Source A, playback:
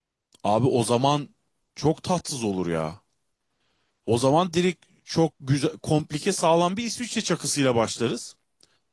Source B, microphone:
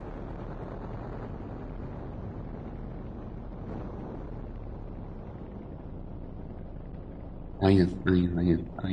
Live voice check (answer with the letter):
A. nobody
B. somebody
B